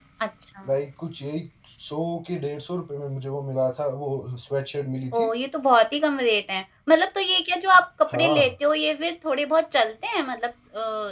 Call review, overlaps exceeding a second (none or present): none